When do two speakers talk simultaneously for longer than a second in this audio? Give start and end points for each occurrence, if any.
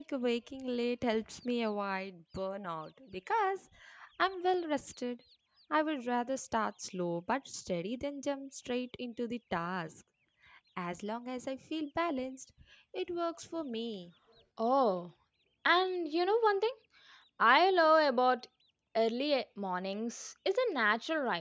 none

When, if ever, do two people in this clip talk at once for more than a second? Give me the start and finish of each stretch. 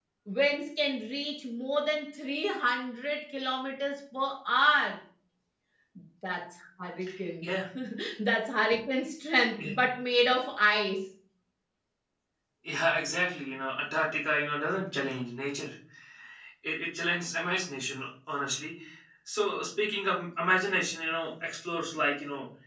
none

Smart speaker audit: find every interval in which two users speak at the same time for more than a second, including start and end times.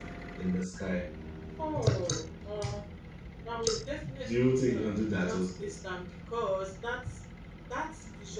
4.2-5.6

